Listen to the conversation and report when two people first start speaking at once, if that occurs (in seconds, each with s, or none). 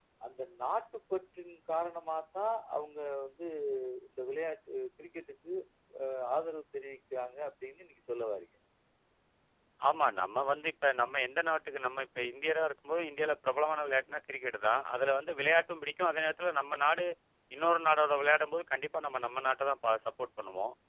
none